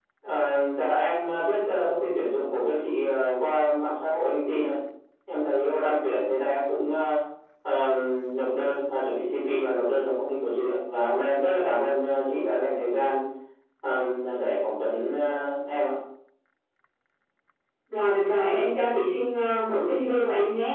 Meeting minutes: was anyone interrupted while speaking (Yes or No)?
No